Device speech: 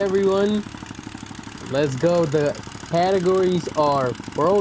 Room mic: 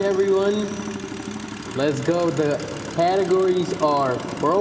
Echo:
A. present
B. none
A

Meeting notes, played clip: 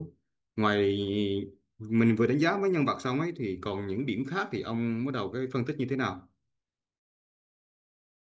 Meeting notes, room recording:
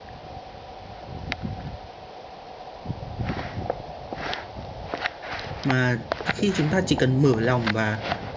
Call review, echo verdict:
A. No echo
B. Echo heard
A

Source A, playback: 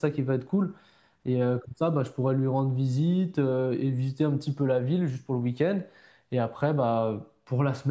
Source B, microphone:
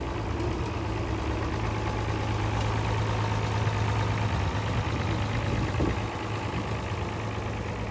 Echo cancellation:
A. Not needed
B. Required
A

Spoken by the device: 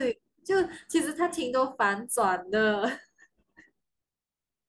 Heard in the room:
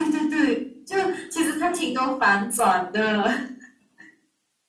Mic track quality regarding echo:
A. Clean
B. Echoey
B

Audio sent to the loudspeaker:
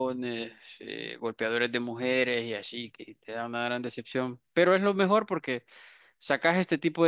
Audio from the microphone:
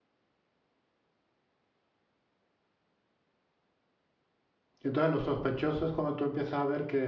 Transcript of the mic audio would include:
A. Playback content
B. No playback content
B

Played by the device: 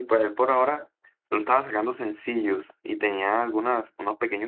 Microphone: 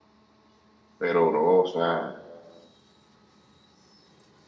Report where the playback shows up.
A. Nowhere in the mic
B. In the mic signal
A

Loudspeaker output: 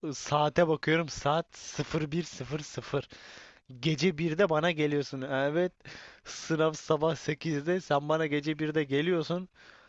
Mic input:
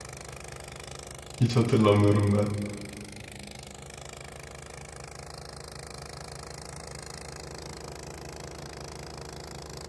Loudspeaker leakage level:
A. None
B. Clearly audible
A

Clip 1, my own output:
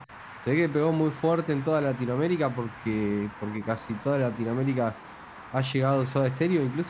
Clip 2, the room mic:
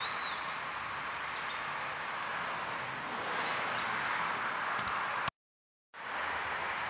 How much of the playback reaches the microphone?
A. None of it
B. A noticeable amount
A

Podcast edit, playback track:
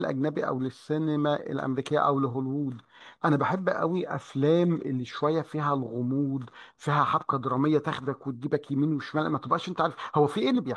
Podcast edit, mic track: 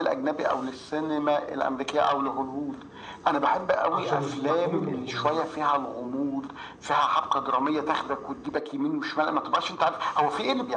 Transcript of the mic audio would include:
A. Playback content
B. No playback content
A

